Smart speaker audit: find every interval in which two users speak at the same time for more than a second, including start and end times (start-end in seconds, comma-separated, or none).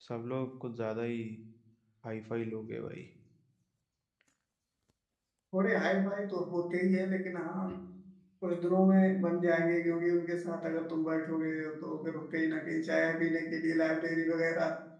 none